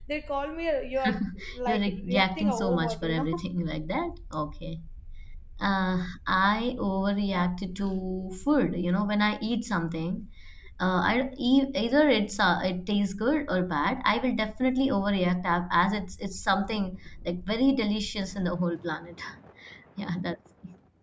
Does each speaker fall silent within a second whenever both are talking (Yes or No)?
No